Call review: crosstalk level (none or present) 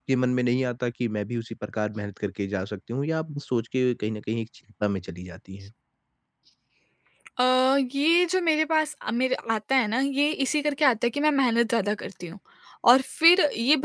none